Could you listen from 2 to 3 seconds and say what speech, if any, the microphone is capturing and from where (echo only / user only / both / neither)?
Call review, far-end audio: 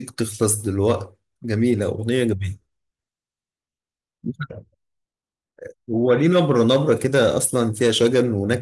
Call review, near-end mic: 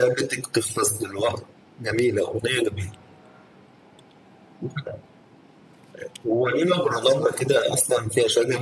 echo only